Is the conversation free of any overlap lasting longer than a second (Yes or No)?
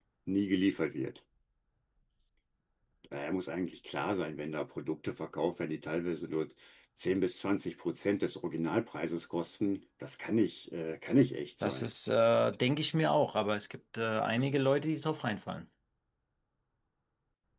Yes